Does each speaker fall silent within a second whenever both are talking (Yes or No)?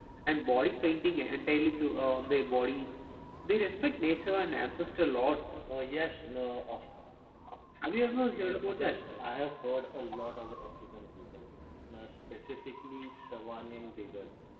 Yes